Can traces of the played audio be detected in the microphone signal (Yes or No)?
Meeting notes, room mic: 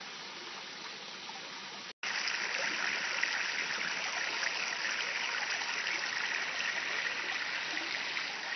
No